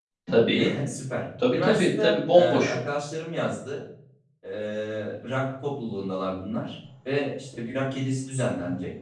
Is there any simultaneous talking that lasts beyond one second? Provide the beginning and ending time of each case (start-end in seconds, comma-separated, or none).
1.5-2.8